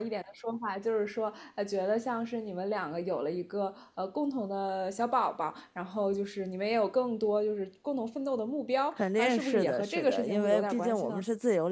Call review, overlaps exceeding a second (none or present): present